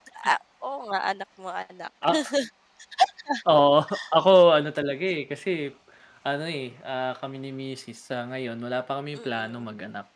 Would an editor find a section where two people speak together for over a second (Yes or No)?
No